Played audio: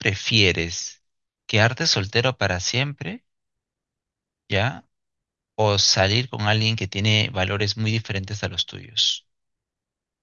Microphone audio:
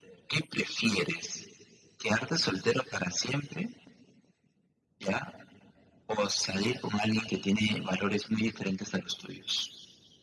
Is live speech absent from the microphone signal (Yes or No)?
Yes